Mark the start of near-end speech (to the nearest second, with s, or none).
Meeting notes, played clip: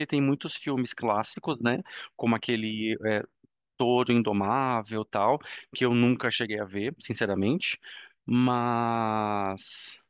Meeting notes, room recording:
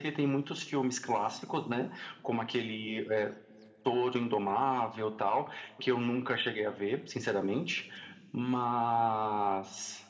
none